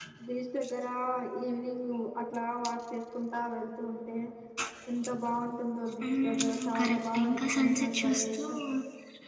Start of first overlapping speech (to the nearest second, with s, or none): 6 s